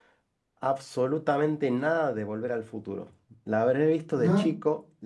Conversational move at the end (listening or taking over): listening